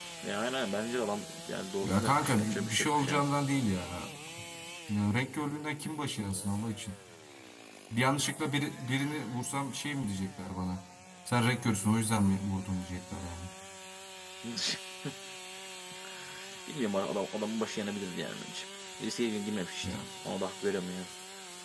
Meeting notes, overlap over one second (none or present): present